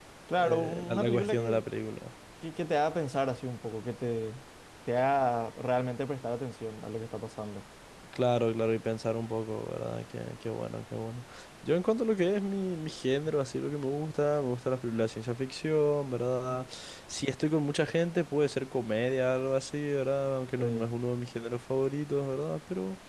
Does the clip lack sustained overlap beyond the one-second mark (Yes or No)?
No